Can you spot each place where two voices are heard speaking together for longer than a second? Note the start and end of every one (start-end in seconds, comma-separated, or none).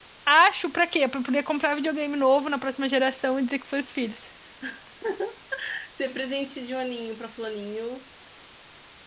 none